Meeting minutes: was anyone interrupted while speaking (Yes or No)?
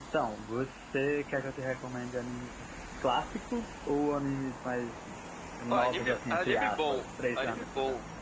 Yes